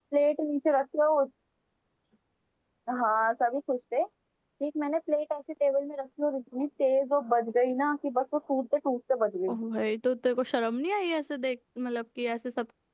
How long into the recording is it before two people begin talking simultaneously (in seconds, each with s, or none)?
none